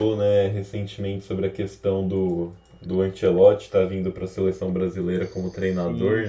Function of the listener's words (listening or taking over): listening